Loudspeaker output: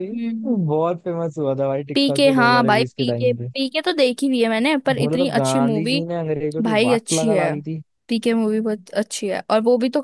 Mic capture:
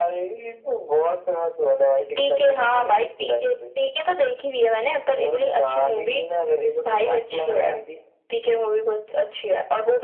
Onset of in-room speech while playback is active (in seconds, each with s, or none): none